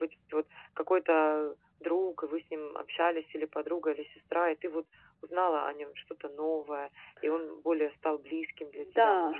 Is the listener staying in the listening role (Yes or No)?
No